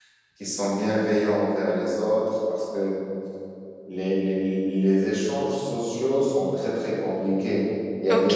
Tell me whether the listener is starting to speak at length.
Yes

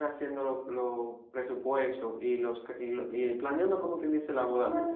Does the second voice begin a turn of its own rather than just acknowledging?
Yes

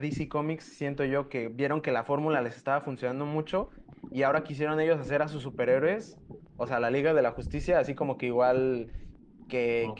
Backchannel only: Yes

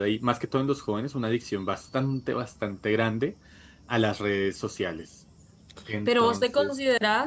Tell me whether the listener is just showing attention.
No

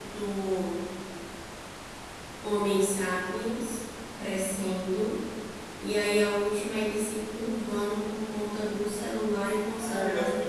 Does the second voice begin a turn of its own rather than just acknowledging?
Yes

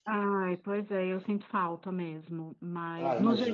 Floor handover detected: No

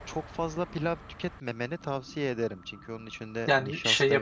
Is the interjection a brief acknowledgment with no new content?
No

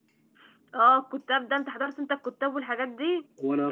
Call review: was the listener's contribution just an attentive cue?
Yes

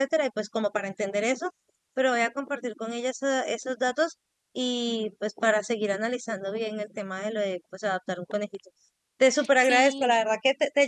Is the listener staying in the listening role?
Yes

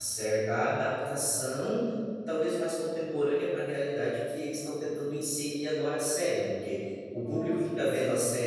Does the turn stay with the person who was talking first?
Yes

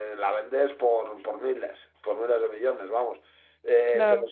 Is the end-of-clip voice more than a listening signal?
No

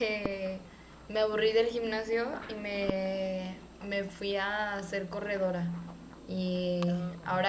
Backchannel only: Yes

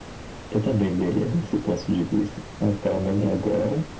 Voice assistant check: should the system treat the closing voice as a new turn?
No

